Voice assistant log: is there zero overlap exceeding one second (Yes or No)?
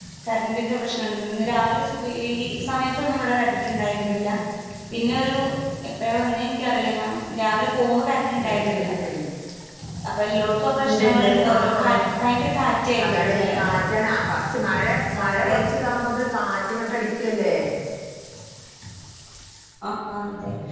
No